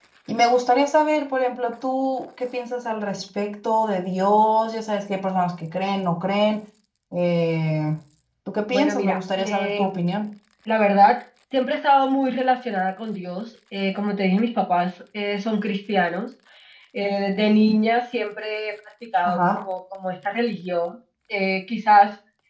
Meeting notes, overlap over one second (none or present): present